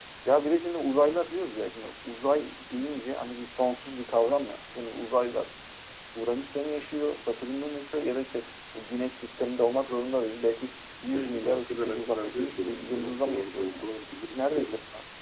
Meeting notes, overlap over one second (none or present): present